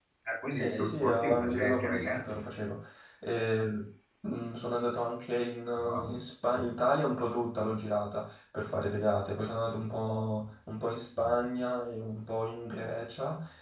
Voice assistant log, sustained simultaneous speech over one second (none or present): present